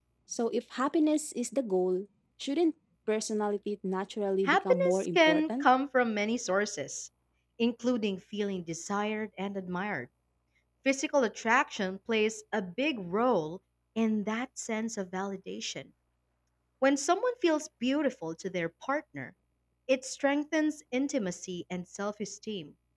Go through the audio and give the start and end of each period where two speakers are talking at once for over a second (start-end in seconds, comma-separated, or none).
4.4-5.6